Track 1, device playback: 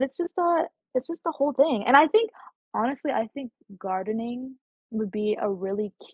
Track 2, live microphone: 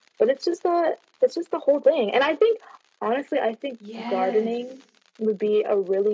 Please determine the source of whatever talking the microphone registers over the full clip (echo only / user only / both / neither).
both